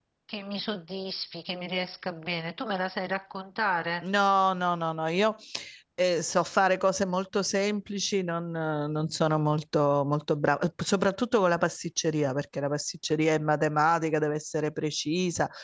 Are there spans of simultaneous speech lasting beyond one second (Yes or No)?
No